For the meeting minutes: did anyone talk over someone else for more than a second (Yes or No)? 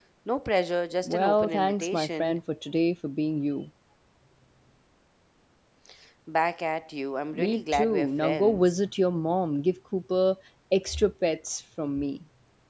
Yes